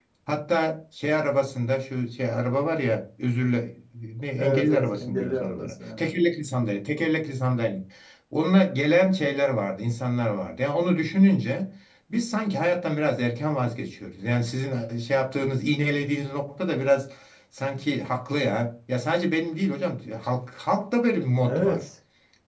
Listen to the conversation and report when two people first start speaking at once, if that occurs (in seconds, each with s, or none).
4.4 s